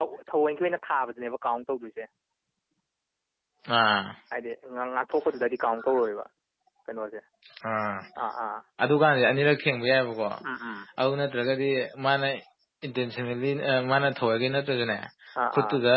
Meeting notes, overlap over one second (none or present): none